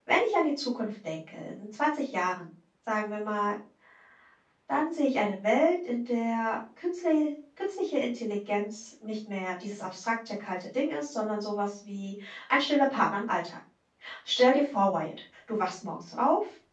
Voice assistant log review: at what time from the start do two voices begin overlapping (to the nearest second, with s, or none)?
none